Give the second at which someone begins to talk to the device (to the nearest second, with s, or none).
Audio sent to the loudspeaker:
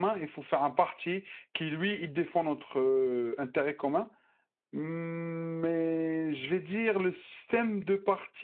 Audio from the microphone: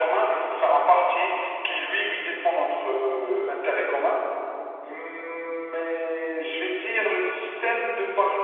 none